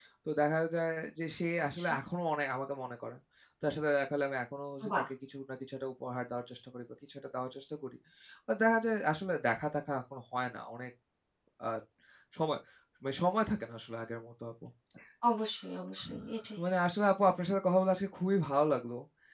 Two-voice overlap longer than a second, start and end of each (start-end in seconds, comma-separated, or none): none